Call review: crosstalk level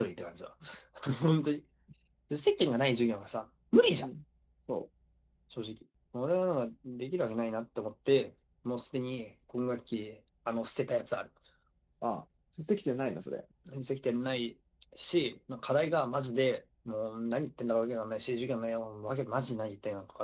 none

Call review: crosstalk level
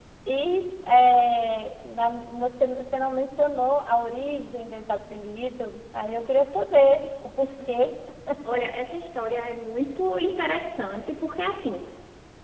none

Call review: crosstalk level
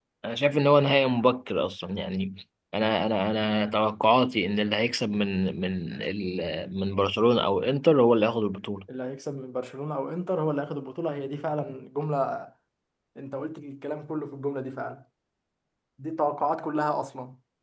none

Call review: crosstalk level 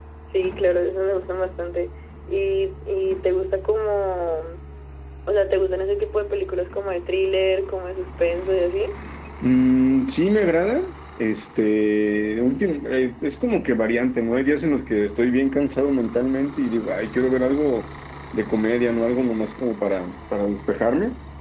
none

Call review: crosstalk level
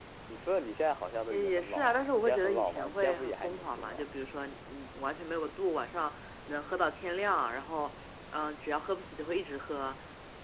present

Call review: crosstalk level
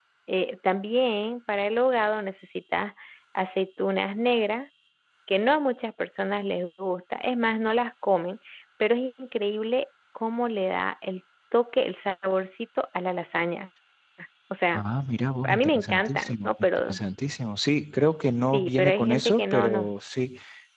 present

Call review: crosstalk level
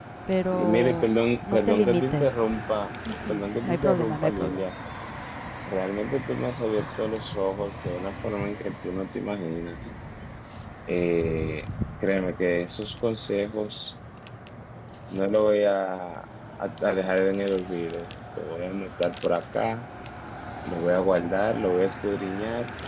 present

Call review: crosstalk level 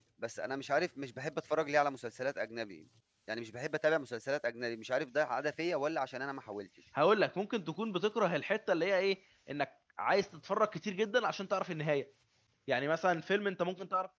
none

